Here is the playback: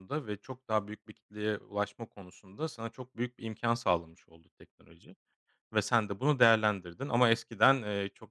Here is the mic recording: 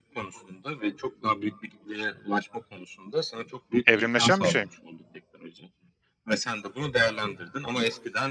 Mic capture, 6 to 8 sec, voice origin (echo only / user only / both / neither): echo only